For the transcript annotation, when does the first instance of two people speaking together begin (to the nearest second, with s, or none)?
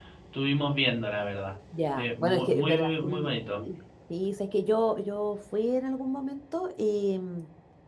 2 s